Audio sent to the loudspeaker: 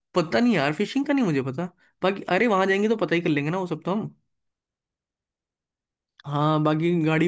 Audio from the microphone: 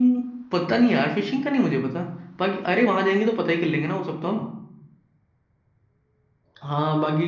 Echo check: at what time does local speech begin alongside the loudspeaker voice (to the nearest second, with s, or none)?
none